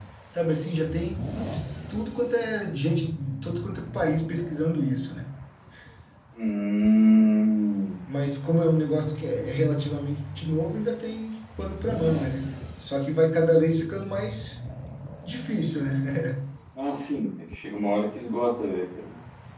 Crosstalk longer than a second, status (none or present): none